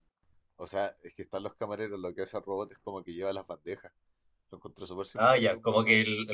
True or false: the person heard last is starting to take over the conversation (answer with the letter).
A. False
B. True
B